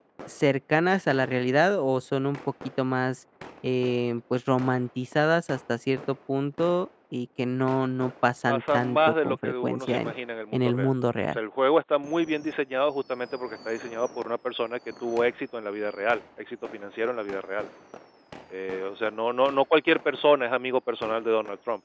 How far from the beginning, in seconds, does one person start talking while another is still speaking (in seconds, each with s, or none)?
8.5 s